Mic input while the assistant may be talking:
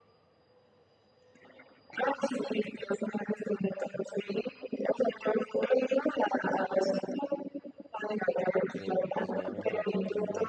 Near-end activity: present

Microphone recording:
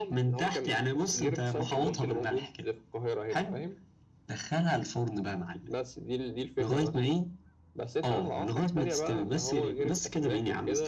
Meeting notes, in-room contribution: present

